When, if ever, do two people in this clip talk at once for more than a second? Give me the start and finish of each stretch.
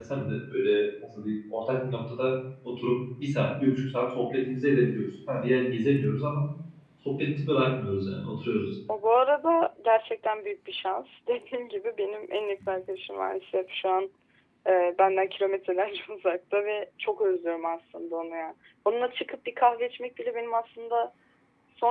none

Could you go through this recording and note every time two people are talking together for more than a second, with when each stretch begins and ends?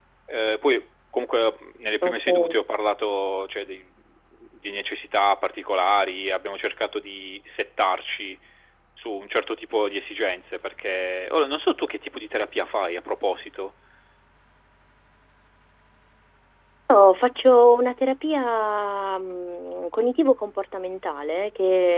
none

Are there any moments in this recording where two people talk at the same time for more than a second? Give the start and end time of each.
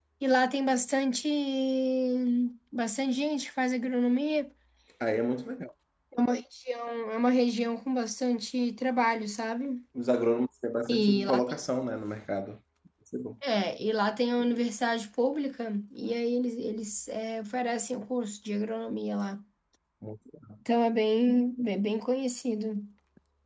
none

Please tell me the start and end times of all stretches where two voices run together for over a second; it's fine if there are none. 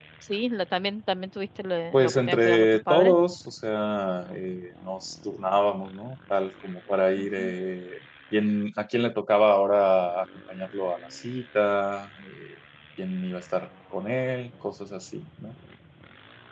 1.9-3.2

